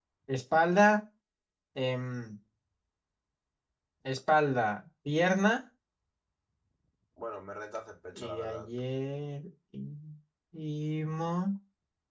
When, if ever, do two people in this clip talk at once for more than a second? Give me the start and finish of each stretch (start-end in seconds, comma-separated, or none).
none